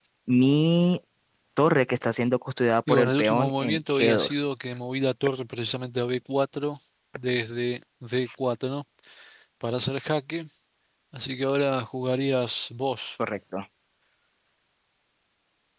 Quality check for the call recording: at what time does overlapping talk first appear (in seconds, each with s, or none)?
2.9 s